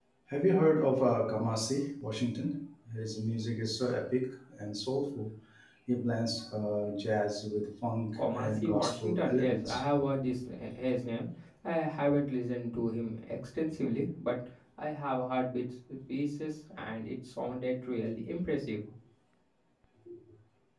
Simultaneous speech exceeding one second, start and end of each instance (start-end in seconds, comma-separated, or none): 8.2-9.8